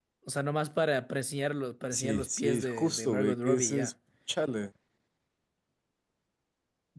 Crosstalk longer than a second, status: present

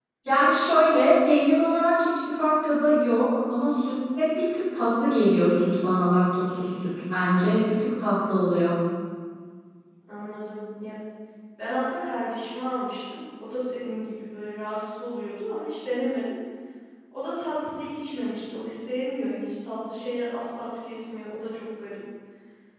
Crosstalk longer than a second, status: none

